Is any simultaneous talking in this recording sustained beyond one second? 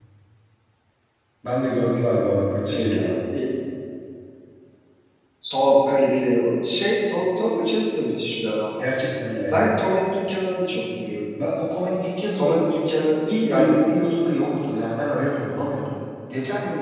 No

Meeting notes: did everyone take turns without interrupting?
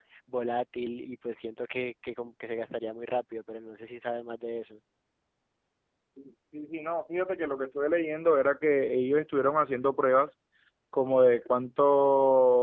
Yes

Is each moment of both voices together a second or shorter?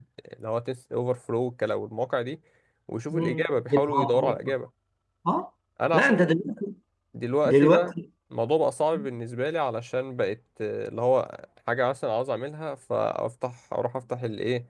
No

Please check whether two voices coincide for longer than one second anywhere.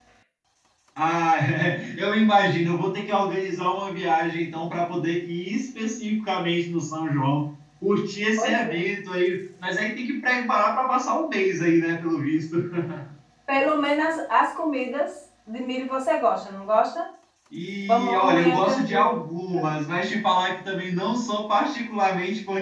Yes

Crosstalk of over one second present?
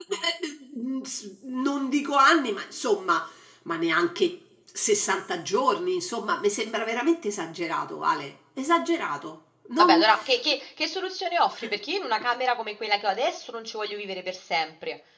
No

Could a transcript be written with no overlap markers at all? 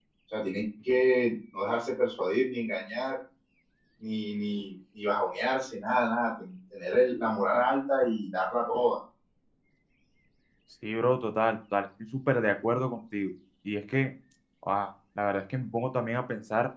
Yes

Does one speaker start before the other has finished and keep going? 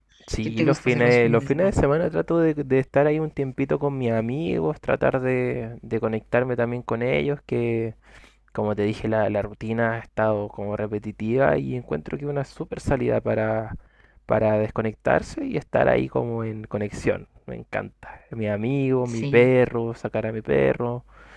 Yes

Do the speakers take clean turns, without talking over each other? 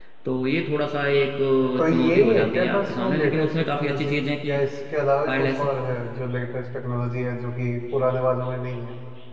No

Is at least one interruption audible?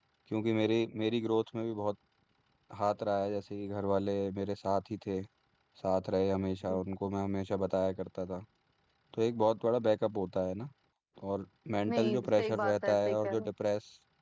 Yes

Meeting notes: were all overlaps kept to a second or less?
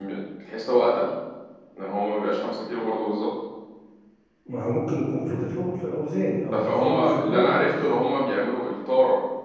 No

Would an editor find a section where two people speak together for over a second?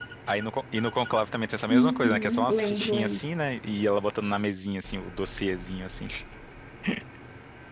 Yes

